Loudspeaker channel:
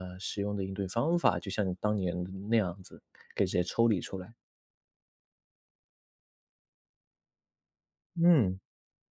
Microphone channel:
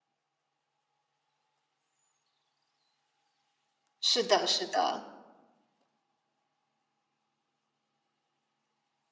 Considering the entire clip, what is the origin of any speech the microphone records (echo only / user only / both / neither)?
user only